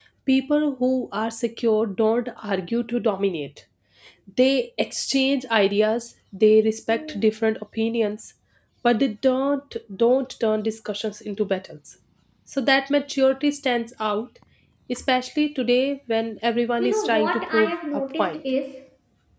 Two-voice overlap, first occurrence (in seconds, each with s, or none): 16.8 s